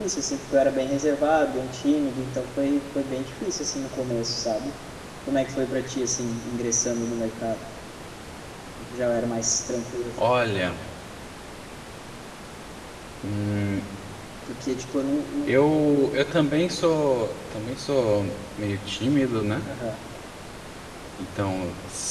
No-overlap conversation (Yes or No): Yes